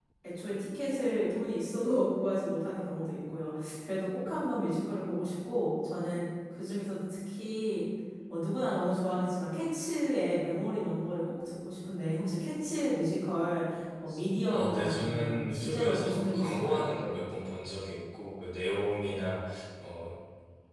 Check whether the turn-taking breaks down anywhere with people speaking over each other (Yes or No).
Yes